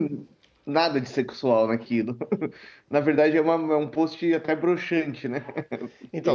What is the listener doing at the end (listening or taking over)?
taking over